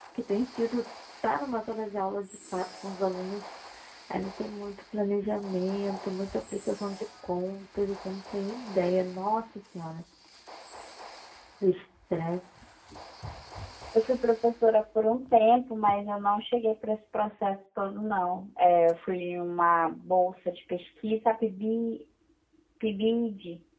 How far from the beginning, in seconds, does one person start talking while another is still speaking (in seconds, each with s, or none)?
none